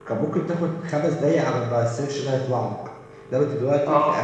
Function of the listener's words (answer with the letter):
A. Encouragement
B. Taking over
A